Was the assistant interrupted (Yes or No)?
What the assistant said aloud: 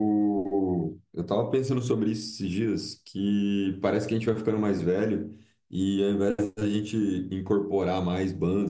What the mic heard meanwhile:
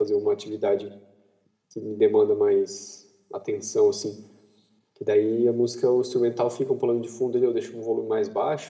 Yes